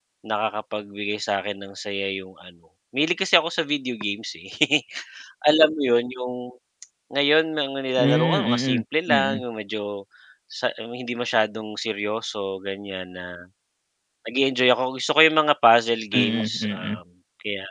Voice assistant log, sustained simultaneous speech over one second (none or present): present